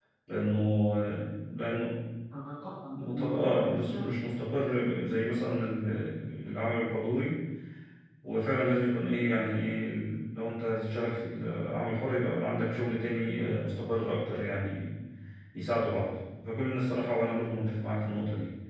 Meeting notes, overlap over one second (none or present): present